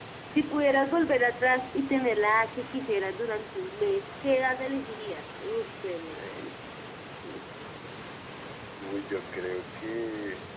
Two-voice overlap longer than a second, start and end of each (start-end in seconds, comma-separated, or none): none